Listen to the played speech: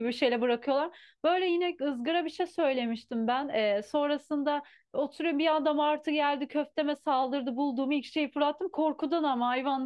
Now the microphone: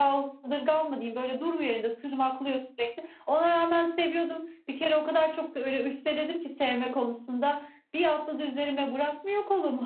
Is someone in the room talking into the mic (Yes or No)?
Yes